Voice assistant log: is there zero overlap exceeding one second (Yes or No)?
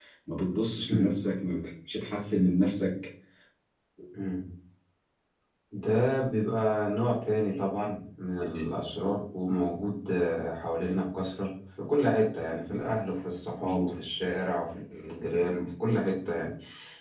Yes